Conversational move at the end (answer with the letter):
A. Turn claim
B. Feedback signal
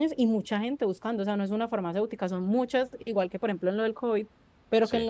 B